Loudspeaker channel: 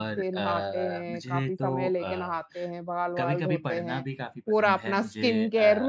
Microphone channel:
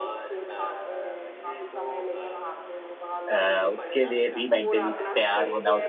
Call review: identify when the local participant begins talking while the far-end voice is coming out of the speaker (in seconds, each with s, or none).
3.3 s